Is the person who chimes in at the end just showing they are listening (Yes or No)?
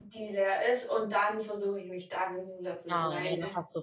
No